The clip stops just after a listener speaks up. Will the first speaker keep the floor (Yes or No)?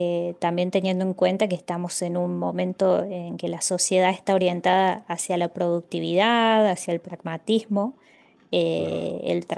Yes